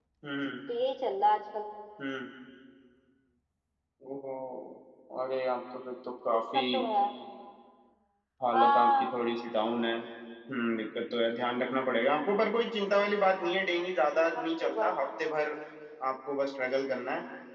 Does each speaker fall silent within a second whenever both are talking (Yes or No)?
Yes